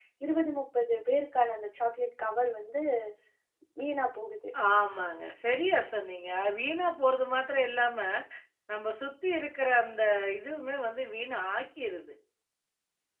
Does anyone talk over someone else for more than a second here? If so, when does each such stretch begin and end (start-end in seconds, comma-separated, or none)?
none